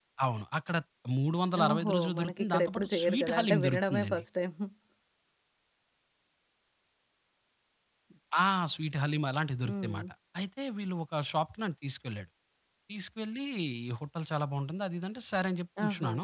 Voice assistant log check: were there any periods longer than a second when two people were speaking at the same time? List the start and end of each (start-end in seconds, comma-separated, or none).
1.6-4.2